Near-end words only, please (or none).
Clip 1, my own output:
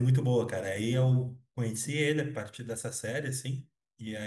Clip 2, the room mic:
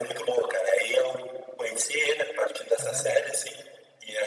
é verdade.